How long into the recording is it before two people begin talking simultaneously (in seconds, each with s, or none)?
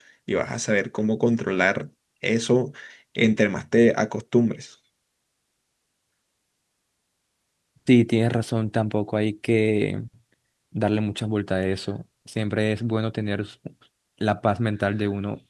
none